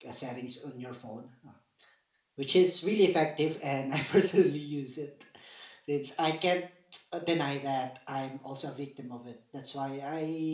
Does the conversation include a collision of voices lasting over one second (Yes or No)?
No